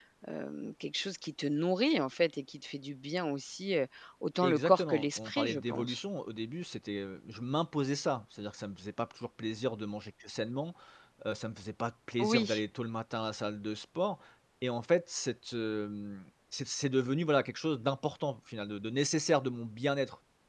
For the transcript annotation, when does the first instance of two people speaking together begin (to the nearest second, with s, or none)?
4 s